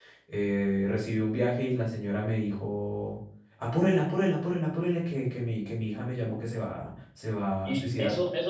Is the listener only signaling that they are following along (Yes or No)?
No